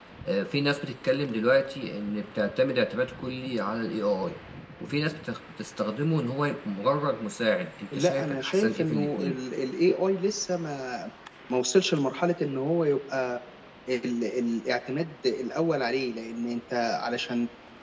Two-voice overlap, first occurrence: 8 s

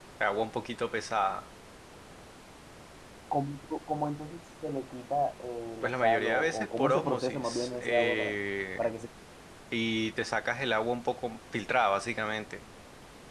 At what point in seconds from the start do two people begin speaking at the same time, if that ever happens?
6 s

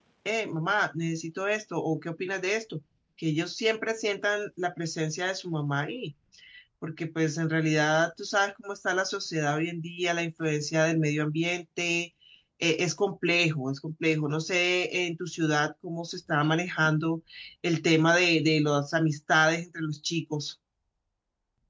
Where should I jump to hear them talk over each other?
none

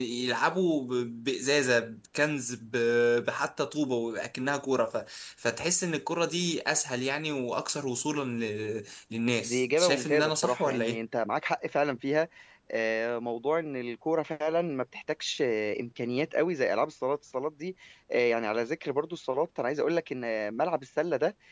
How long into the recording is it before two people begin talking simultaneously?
9 s

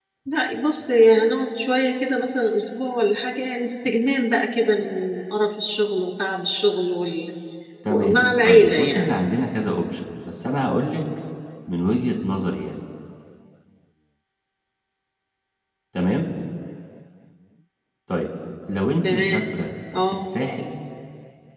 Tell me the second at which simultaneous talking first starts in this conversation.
8 s

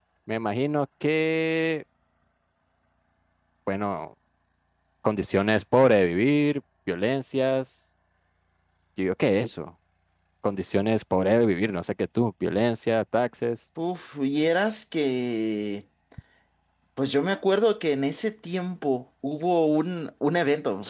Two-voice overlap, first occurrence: none

